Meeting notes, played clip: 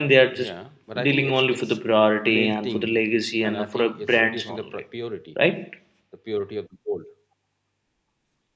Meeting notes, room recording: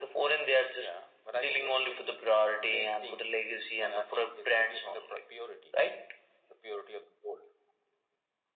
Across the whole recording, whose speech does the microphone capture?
echo only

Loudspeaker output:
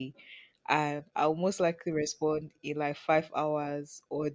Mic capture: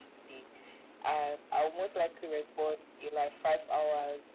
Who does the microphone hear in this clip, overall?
echo only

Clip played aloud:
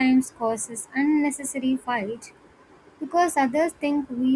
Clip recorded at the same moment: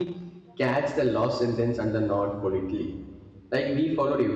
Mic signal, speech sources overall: user only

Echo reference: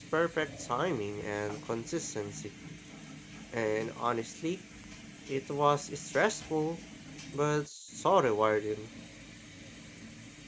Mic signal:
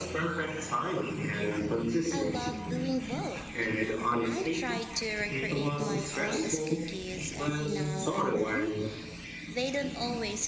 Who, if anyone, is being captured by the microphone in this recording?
both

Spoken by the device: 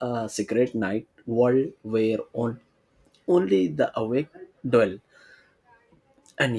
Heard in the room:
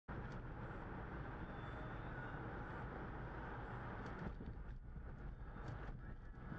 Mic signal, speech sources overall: neither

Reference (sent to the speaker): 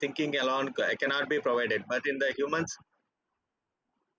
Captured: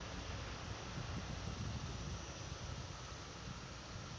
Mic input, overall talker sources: neither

